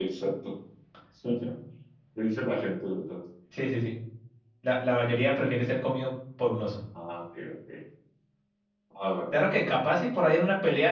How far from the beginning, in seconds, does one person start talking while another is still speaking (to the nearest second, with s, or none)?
none